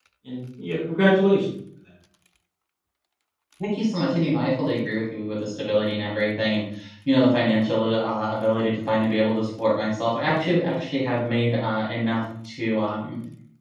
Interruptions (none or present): none